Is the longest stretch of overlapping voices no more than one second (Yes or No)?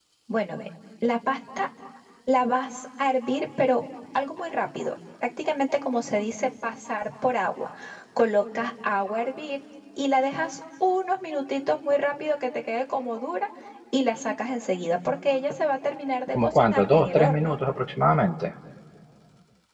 No